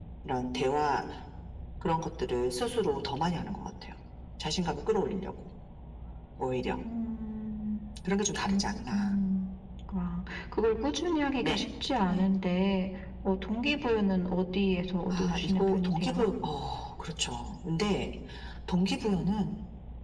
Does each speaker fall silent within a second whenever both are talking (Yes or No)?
No